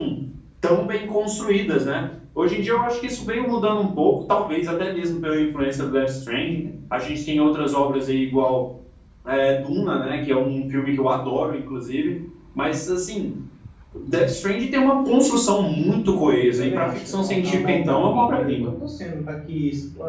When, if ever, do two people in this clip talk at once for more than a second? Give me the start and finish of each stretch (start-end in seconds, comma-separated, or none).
16.5-18.7